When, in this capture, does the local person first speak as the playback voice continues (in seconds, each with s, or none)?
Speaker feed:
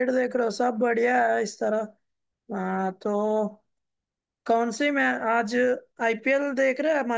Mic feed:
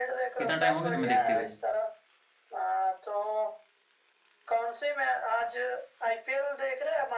0.4 s